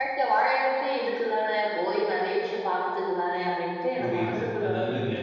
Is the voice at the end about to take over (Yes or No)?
Yes